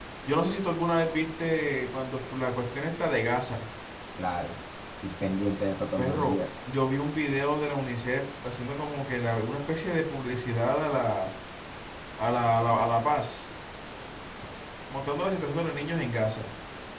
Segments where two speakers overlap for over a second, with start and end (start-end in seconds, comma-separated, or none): none